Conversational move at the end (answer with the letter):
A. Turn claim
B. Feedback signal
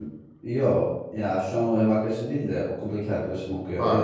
A